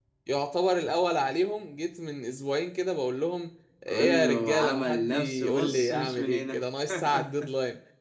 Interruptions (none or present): present